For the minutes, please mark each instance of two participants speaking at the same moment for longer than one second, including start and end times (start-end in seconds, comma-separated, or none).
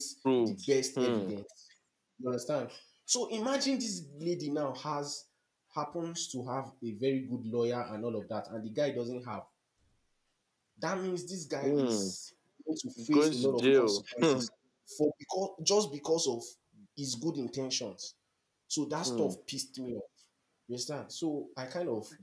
13.1-14.4